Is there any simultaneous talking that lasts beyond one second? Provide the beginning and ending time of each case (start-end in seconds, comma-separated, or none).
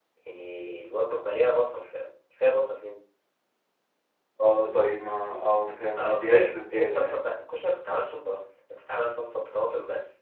6.0-7.2